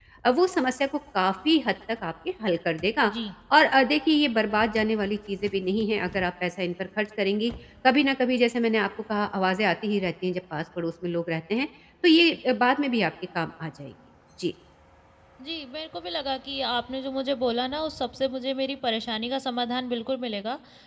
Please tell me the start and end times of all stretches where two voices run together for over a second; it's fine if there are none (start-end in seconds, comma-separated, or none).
none